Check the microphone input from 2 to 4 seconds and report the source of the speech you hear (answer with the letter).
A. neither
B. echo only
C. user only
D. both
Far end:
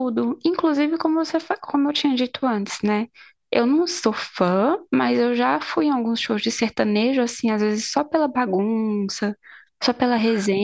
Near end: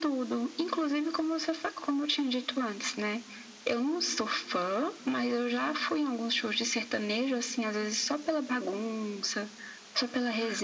B